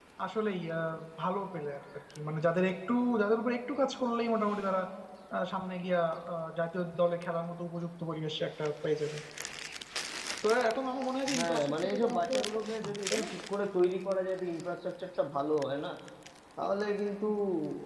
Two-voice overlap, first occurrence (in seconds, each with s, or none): 11.3 s